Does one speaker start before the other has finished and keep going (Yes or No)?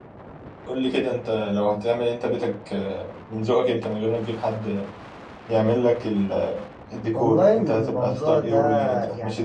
Yes